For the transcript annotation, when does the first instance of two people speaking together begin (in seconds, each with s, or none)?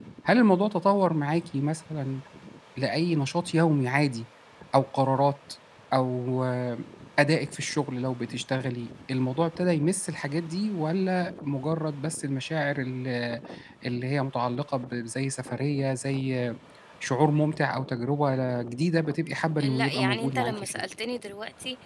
19.6 s